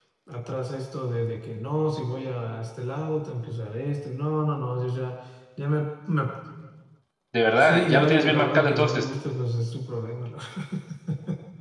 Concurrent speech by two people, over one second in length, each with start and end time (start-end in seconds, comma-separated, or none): 7.6-9.0